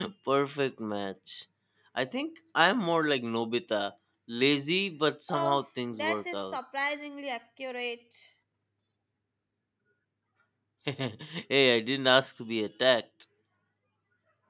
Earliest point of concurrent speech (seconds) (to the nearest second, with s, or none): 5 s